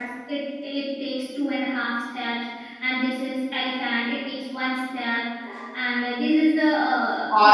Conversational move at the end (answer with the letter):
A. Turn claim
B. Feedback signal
B